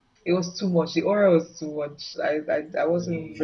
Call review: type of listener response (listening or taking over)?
listening